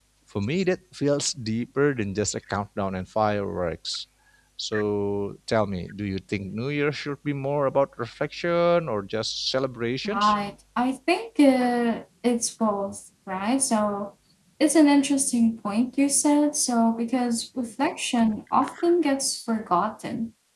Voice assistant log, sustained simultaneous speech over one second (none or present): none